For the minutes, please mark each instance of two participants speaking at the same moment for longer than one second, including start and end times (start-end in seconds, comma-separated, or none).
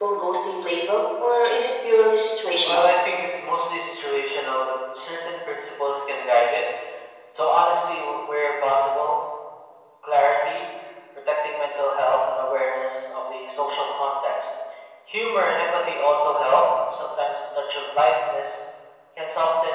none